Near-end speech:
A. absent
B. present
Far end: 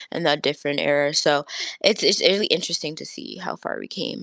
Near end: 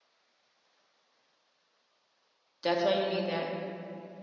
B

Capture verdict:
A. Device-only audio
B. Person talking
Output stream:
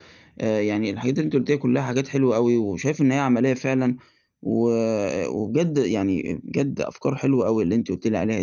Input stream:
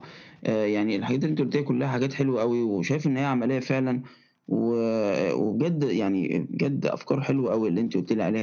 A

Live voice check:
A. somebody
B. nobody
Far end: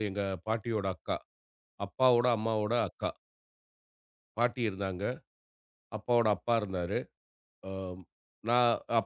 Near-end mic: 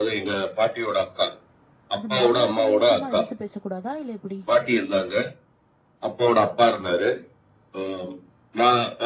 A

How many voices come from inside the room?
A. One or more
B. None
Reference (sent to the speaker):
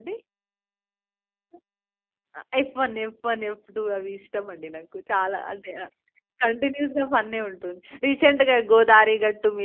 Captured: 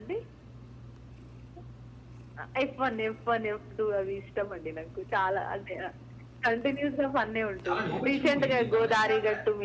A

